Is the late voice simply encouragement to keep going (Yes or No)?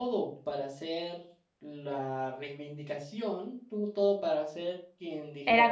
No